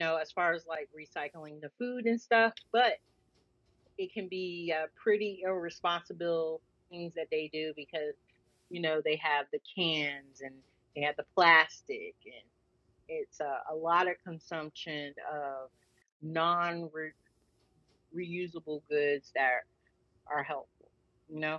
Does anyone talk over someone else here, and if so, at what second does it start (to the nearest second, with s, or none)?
none